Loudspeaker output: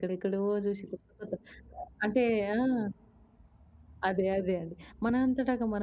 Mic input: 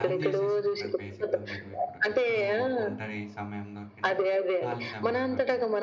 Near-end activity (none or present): present